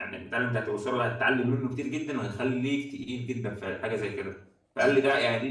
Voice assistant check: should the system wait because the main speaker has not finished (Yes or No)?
Yes